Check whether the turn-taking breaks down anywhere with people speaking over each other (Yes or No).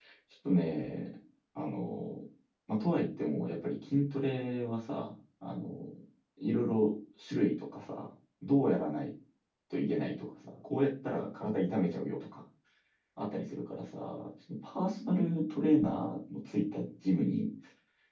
No